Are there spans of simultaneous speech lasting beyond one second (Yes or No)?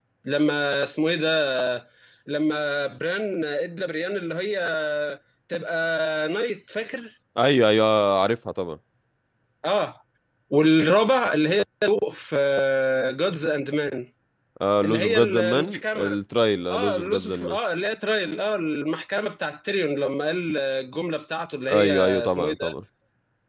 Yes